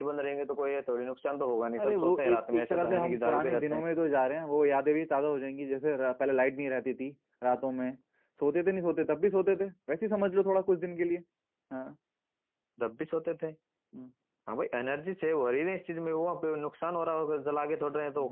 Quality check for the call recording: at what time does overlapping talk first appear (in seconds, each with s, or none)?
1.8 s